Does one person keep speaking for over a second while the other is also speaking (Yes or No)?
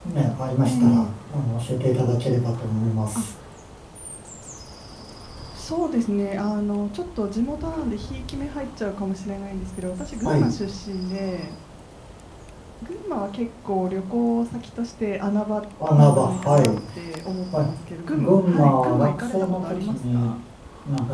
Yes